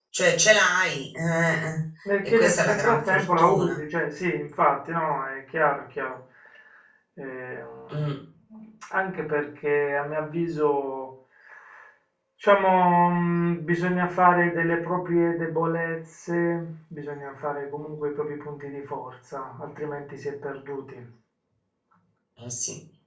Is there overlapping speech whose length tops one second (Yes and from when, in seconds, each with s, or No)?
Yes, from 2.2 s